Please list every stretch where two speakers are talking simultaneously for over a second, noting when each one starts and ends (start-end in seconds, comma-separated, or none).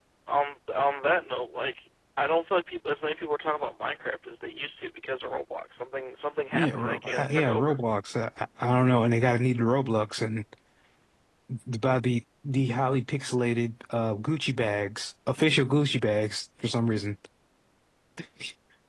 6.5-7.8